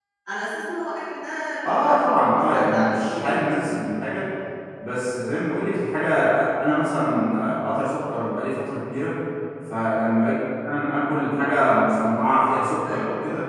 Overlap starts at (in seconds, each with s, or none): 1.6 s